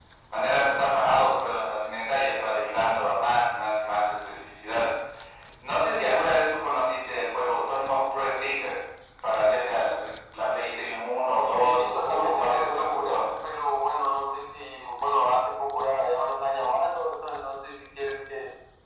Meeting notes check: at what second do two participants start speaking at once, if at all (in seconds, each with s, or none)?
11.6 s